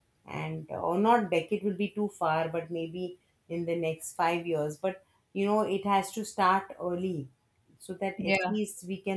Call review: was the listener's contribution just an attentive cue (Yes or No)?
Yes